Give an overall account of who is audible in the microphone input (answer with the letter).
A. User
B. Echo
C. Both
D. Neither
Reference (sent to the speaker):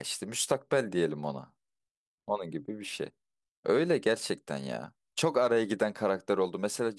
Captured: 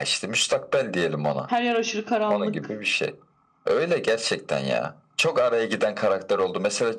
C